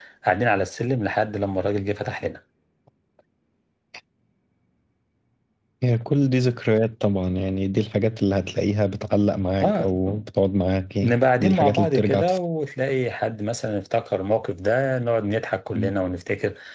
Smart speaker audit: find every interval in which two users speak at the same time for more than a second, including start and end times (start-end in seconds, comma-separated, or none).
11.0-12.4